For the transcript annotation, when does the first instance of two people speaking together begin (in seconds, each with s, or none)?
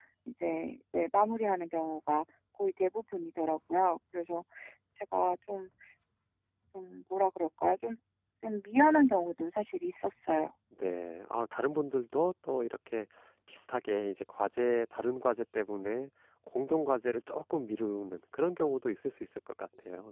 none